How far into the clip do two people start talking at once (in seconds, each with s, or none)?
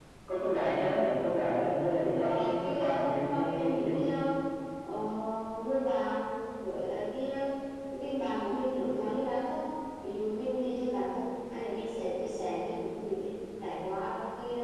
2.2 s